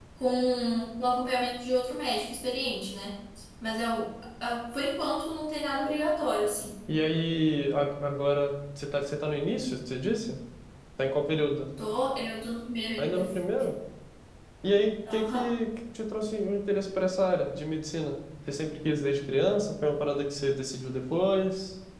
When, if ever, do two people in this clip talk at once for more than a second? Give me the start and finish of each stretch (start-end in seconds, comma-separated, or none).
none